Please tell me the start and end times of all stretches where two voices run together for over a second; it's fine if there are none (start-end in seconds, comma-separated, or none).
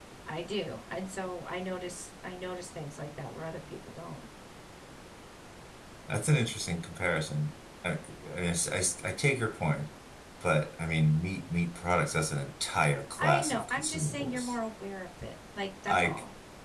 13.2-14.5